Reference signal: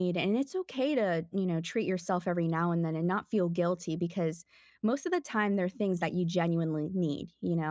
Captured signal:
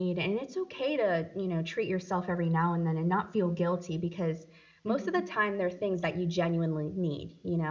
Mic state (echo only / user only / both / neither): both